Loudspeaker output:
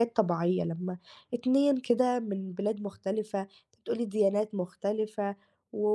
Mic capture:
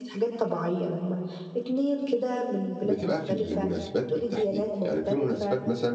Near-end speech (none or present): present